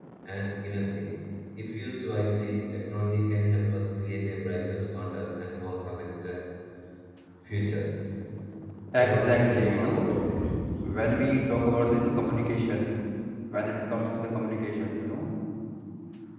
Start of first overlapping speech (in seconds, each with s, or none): 8.9 s